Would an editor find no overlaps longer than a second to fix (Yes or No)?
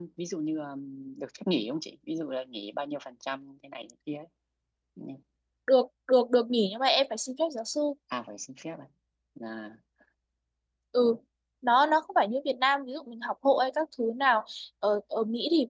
Yes